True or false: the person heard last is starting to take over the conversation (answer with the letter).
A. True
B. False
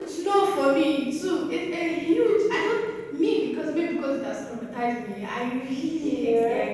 B